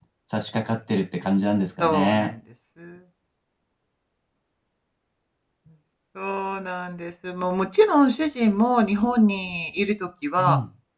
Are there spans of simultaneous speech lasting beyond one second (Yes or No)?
No